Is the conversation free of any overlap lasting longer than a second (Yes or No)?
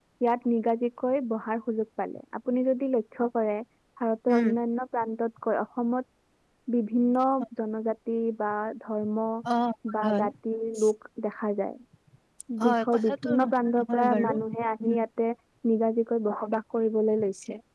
No